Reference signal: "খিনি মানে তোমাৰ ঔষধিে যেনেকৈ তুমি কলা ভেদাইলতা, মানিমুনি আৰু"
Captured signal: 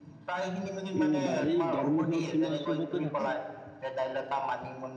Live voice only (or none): উম বাৰী দৰমুখত তোমাৰ চবতে থাকে।